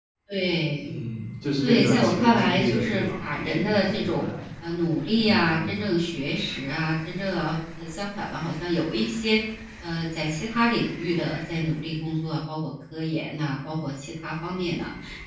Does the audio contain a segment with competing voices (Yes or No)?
Yes